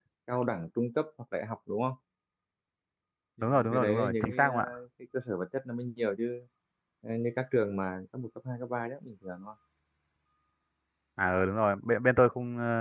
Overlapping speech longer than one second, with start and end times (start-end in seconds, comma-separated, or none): 3.4-4.7